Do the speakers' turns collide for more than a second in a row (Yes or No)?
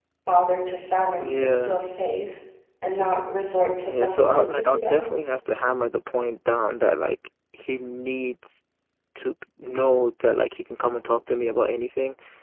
Yes